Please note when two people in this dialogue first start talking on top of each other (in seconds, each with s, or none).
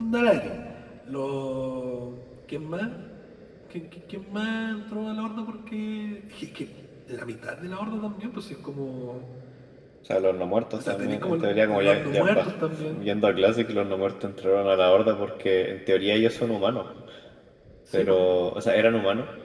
10.8 s